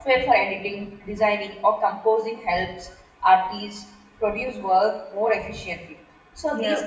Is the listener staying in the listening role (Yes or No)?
Yes